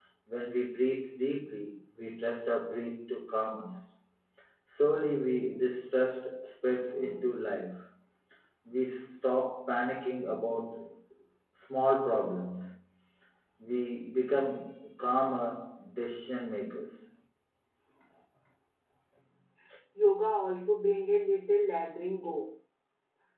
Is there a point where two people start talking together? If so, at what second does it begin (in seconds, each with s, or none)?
none